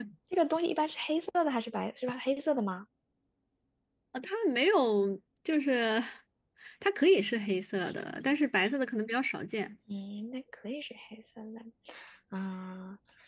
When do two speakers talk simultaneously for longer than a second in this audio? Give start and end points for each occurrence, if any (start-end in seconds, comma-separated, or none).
none